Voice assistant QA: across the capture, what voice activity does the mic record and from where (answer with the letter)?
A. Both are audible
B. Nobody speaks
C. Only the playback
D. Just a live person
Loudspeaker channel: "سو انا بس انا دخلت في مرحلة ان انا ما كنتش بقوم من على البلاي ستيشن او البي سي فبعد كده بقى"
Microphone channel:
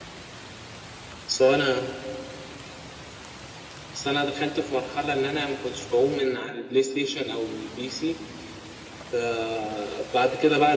C